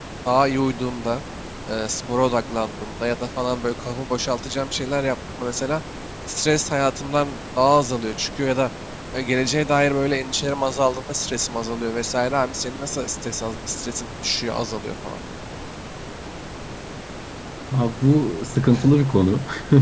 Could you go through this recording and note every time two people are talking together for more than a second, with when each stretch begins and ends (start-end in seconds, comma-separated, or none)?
none